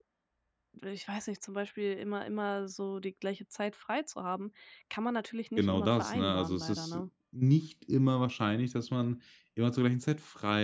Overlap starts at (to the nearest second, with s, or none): 6 s